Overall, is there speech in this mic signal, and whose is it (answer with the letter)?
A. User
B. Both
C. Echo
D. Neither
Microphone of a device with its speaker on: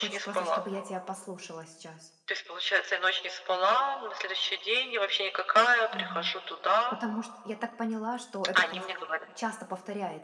B